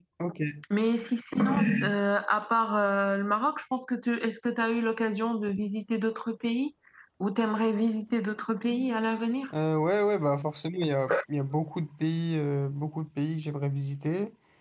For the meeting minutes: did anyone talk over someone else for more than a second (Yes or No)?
No